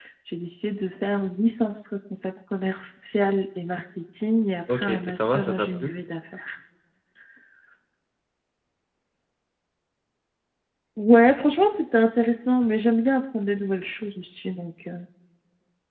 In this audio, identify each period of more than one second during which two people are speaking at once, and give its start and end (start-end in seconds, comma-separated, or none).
4.7-5.9